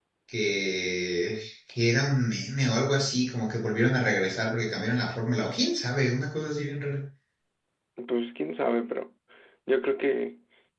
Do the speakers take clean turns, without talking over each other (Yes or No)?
Yes